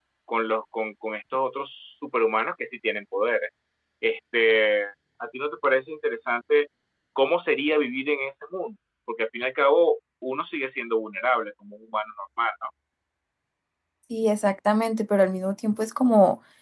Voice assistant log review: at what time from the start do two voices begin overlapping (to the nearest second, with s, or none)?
none